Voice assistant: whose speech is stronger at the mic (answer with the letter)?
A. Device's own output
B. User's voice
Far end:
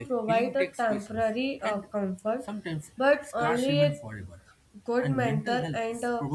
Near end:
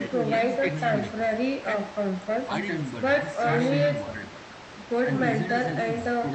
A